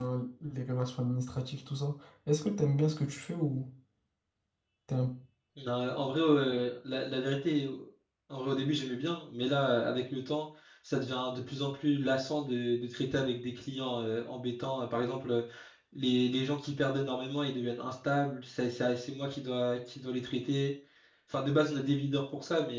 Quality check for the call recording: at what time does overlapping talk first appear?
none

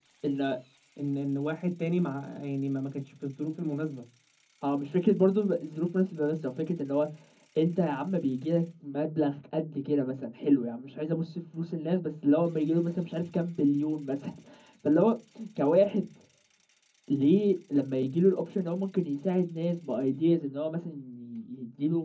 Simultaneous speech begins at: none

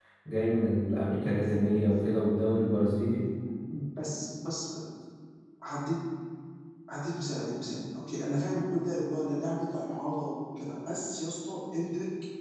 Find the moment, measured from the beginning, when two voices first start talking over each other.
none

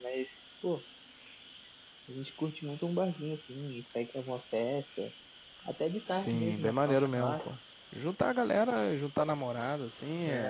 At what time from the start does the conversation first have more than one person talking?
6.1 s

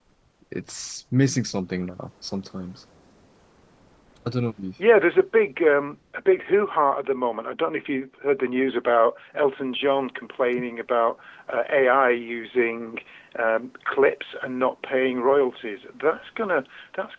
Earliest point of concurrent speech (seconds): none

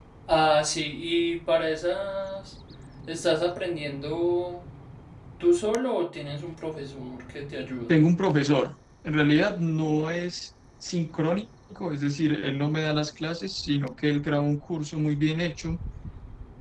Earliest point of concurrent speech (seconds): none

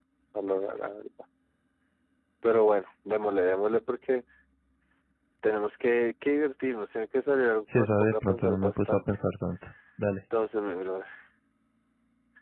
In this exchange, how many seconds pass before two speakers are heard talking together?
7.7 s

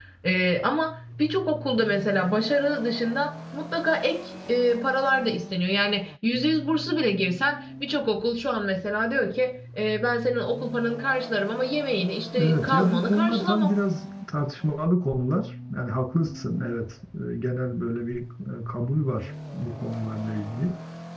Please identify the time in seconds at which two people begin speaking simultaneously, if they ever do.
12.3 s

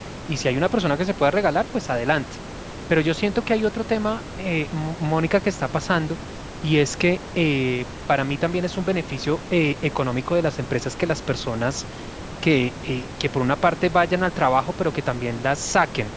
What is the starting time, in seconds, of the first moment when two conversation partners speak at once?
none

